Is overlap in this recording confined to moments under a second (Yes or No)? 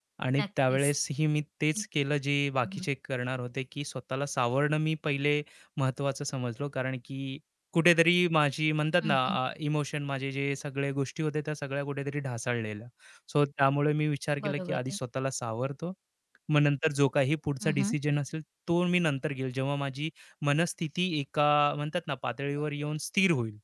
Yes